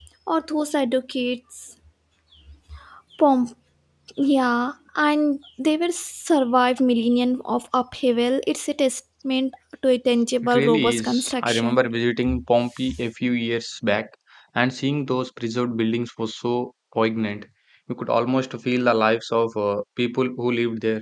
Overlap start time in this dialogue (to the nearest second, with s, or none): 10 s